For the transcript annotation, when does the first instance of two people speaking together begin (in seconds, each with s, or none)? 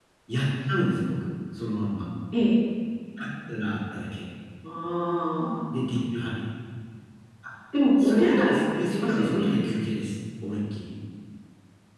8.0 s